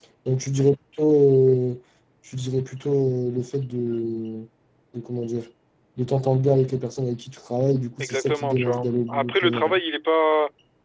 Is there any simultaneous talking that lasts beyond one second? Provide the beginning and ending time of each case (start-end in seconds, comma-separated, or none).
8.0-9.8